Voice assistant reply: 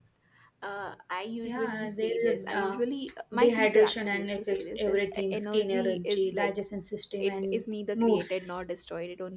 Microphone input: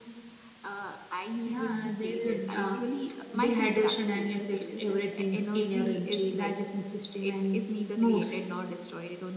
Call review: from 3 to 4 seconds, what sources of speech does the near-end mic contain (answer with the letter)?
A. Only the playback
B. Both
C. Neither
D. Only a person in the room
A